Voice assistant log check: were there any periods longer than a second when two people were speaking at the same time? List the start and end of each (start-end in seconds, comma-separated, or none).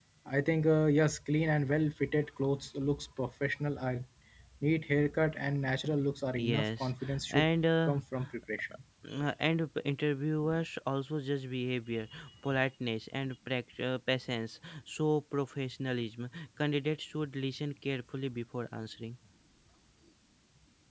6.3-8.0